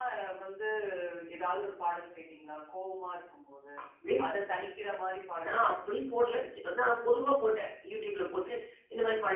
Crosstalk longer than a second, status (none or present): none